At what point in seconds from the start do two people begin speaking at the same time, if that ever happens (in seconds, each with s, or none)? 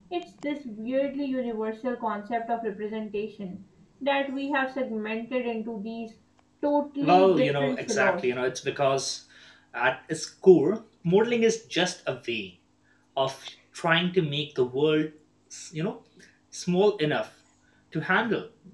7.0 s